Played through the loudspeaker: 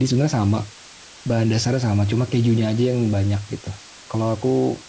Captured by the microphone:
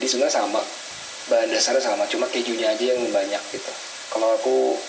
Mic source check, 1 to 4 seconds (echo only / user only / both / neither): echo only